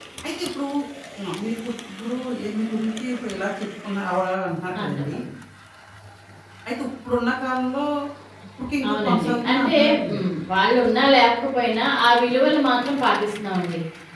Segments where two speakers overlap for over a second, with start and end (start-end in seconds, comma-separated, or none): 8.9-10.3